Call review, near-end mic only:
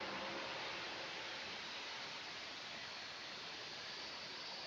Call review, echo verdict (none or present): none